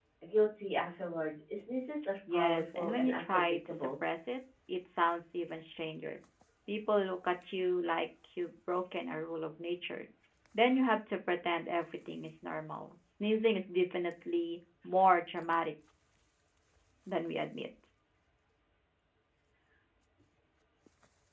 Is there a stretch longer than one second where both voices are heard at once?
Yes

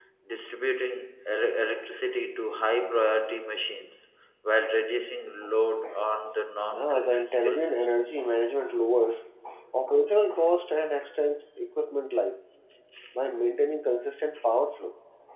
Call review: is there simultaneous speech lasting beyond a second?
Yes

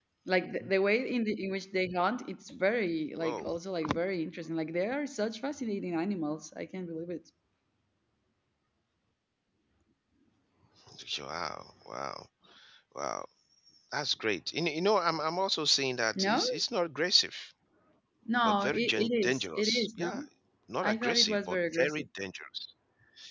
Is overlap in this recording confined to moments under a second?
No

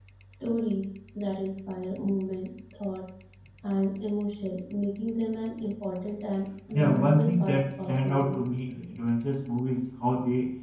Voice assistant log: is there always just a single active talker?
No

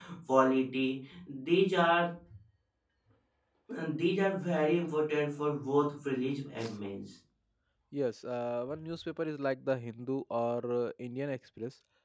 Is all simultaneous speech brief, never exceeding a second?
Yes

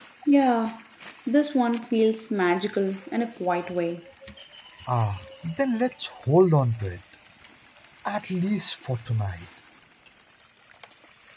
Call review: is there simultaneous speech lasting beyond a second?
No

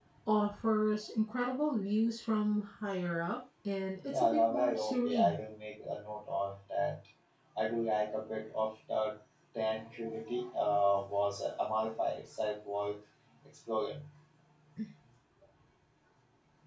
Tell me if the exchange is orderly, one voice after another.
No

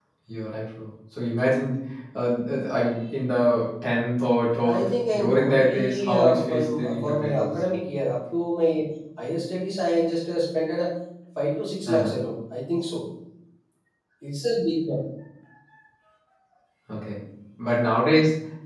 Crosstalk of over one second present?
Yes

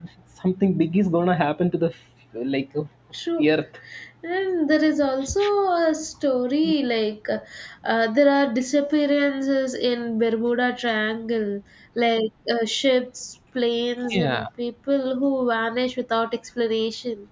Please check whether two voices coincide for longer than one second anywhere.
No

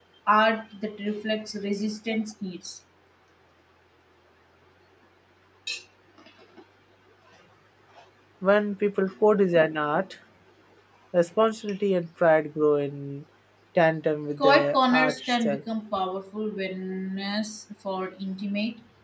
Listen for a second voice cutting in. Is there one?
Yes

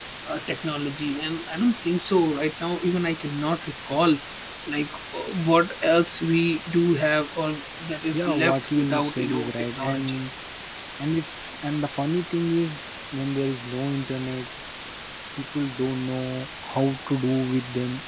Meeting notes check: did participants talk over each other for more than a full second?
Yes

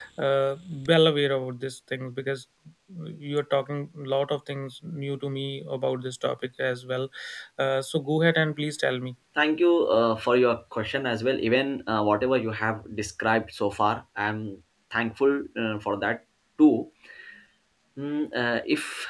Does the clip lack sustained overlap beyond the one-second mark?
Yes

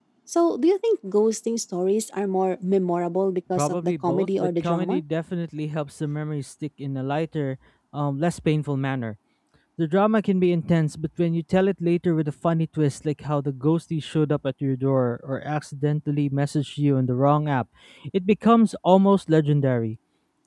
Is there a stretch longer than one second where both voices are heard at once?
Yes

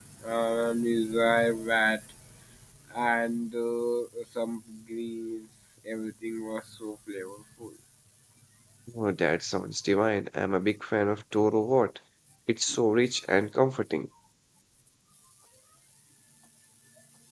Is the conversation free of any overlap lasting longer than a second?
Yes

